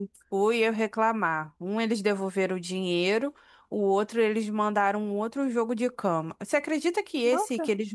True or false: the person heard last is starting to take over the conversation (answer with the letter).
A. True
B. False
B